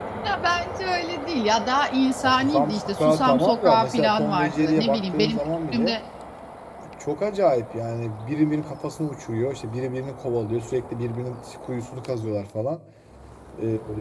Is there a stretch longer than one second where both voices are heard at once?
Yes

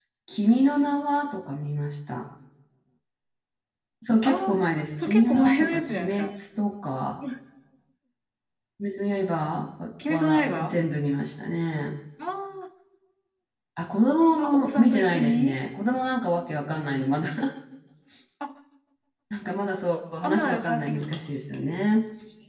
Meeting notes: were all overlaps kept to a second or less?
No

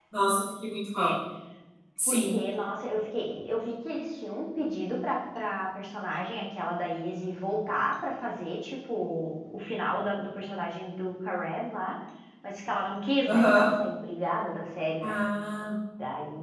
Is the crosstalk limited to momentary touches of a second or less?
Yes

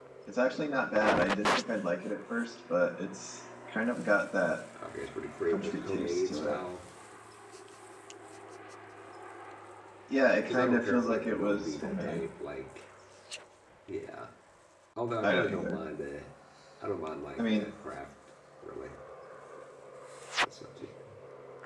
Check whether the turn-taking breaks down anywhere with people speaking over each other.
Yes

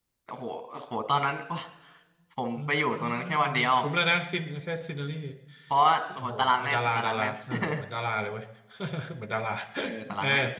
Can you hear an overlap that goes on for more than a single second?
Yes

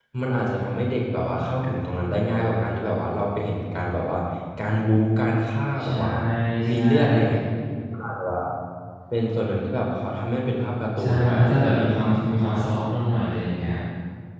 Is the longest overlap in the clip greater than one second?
No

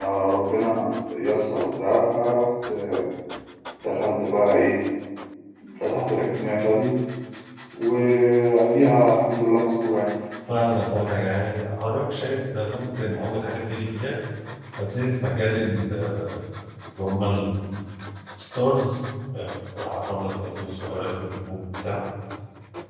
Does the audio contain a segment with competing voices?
No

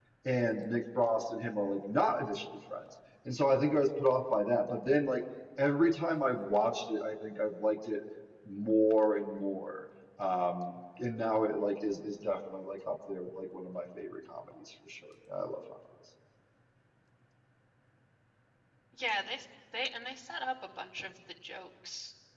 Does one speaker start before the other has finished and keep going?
No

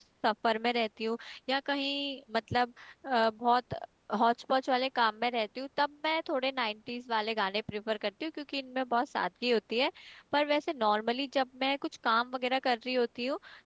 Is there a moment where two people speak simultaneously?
No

